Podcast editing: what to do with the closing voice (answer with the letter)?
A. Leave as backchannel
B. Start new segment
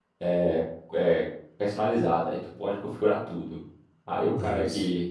A